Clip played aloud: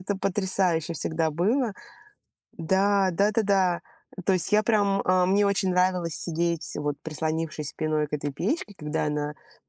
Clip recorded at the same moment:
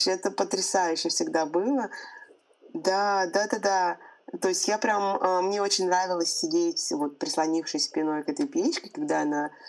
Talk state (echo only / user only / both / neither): echo only